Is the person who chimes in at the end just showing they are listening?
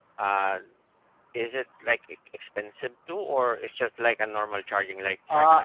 No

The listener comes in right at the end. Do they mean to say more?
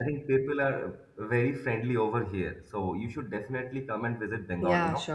Yes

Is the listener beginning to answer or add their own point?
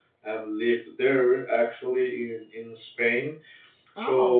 No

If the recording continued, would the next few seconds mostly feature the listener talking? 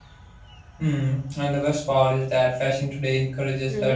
No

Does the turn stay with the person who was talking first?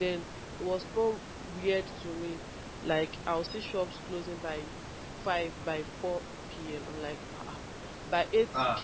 Yes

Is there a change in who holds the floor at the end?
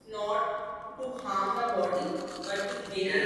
No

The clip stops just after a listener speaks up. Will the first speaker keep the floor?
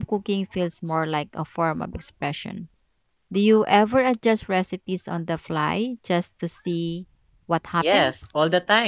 No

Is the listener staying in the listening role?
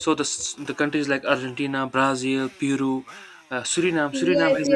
No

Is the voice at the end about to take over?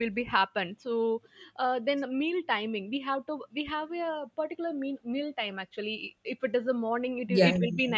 No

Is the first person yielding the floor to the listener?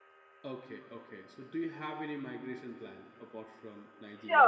Yes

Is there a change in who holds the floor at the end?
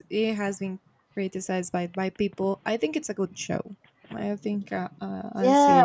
Yes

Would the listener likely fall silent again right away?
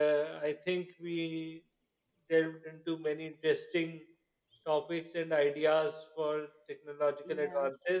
Yes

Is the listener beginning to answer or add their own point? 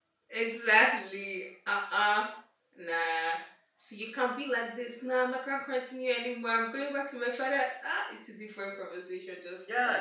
Yes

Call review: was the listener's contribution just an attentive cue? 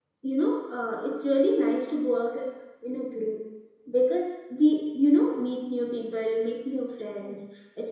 Yes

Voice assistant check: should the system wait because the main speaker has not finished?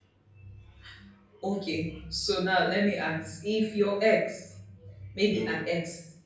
Yes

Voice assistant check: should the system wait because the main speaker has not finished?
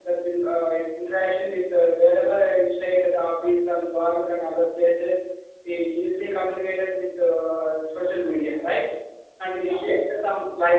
Yes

